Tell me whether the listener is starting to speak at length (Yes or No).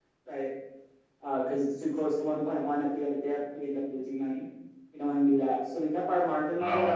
No